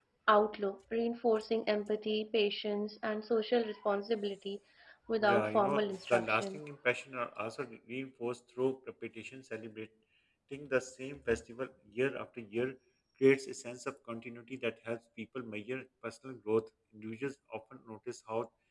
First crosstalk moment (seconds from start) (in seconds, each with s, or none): 5.2 s